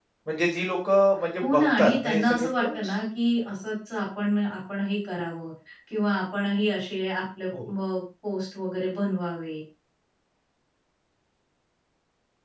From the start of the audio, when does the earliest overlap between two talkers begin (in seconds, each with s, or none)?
1.4 s